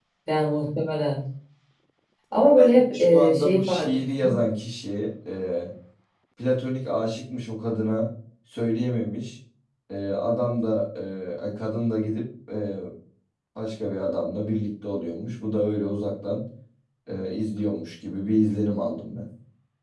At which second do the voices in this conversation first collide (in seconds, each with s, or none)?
2.6 s